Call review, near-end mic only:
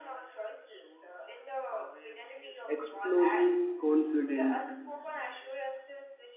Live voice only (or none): exposing confident